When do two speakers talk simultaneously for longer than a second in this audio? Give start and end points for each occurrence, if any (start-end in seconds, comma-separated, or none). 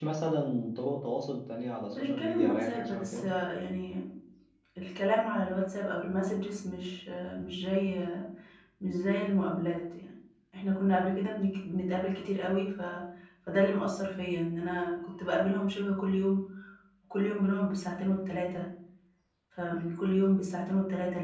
1.9-3.3